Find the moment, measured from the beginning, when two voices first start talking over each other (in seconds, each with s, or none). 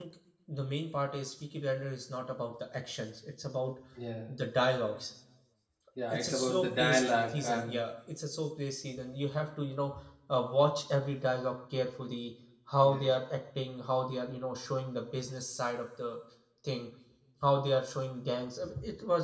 6.1 s